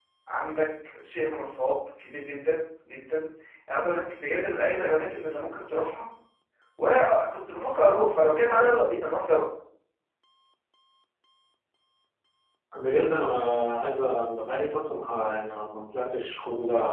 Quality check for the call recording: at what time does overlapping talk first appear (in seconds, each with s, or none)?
none